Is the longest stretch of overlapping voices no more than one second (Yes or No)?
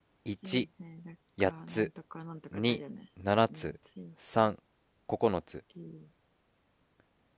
Yes